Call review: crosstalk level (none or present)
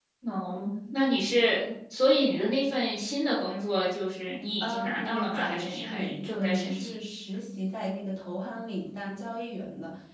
present